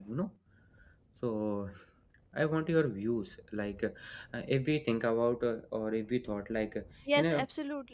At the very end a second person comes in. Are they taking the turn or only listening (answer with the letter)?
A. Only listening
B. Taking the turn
B